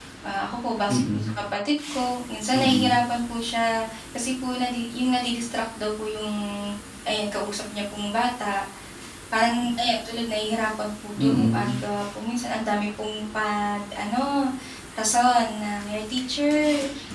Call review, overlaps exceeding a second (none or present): none